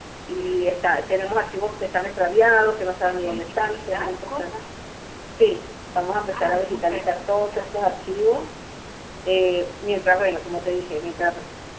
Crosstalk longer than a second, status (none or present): present